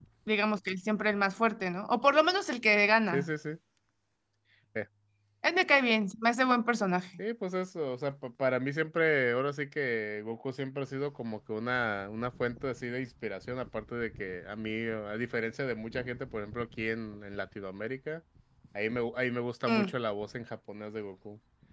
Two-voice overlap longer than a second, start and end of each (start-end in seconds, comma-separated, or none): none